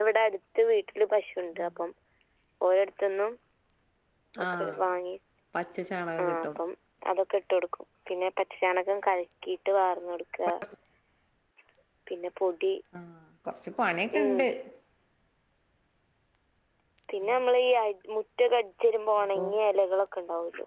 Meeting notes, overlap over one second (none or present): none